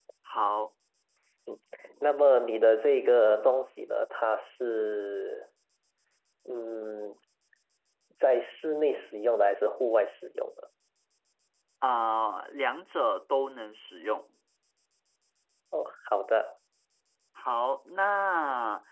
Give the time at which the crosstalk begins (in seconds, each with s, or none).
none